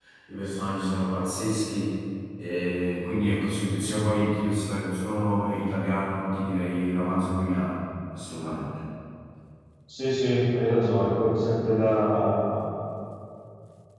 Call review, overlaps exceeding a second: none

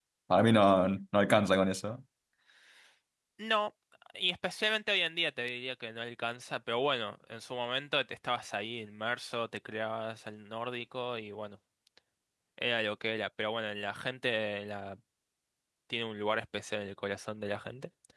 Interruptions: none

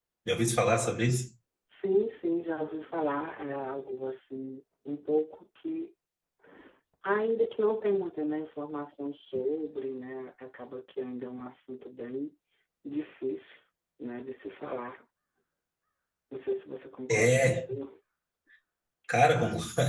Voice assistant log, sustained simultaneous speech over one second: none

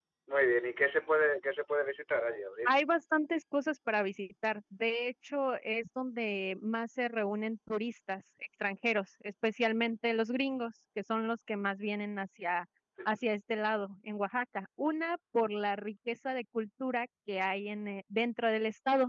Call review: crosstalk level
none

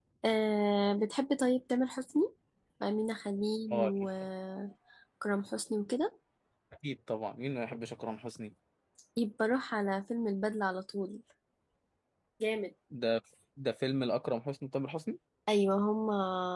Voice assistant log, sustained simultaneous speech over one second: none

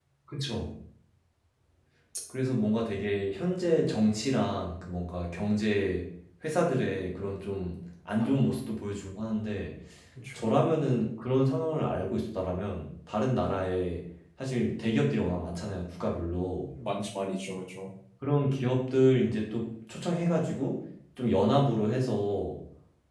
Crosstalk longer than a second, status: none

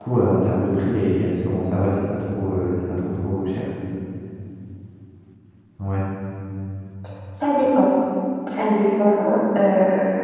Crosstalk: none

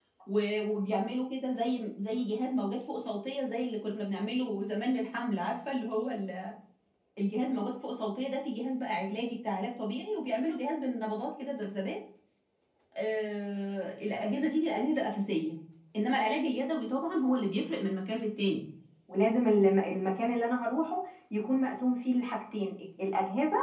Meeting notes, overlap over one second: none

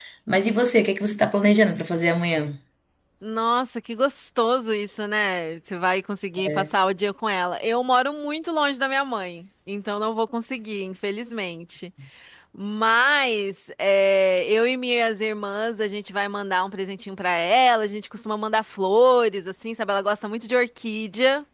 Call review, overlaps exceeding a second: none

